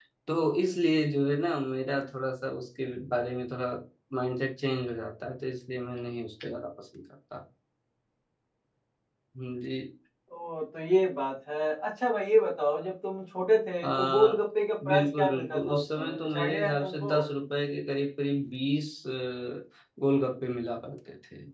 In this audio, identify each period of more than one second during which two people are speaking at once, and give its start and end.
14.9-17.1

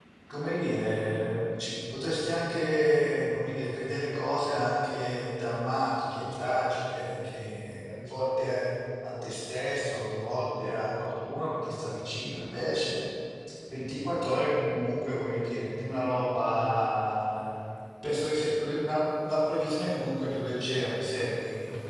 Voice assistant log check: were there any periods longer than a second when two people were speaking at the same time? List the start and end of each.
none

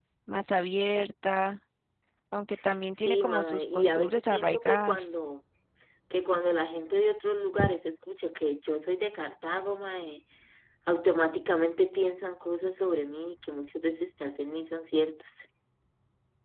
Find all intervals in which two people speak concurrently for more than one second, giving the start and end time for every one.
3.0-5.1

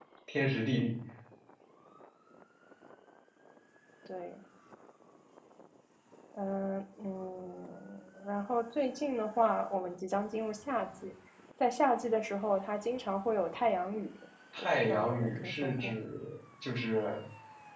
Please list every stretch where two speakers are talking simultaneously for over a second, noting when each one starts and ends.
14.6-16.0

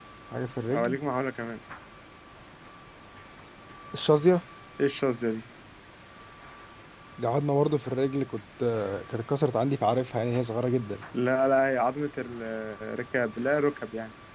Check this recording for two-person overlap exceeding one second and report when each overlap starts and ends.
none

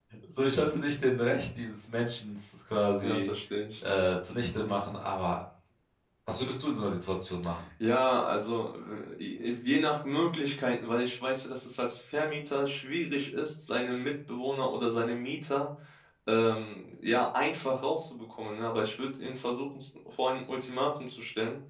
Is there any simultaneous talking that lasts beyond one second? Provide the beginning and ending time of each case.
none

